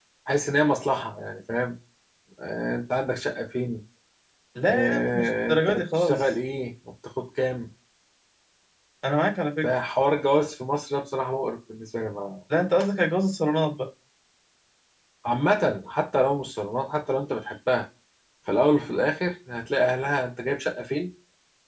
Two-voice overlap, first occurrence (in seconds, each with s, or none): 4.7 s